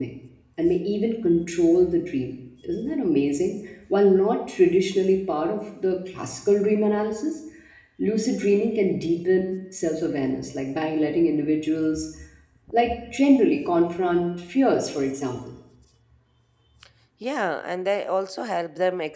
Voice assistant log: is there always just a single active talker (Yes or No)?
Yes